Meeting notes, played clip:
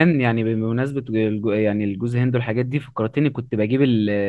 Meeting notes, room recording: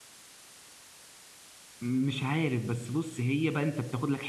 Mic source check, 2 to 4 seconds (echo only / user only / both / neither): user only